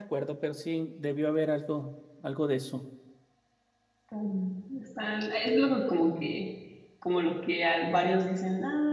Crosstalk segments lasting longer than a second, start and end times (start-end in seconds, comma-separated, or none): none